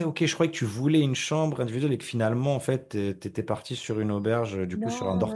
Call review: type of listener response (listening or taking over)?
taking over